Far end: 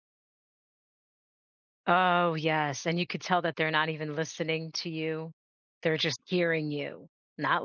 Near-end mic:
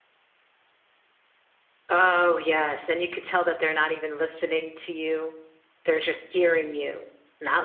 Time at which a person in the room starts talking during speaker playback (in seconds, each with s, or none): none